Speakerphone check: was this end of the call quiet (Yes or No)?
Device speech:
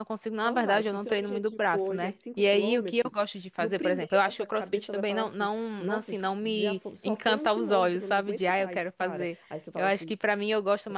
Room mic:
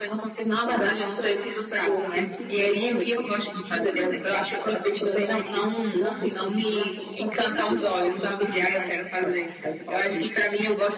Yes